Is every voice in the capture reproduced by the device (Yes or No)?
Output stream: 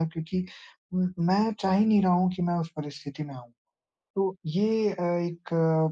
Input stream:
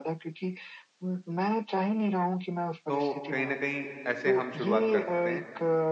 No